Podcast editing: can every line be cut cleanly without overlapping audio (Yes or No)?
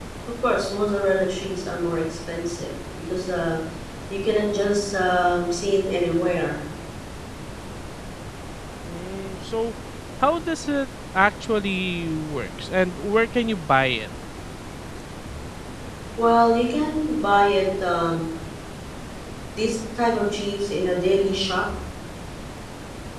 Yes